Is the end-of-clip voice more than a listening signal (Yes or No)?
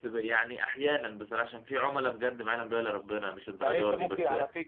Yes